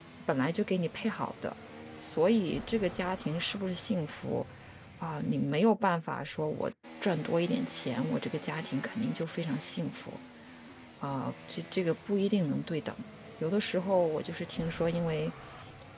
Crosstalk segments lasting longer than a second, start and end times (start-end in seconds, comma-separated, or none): none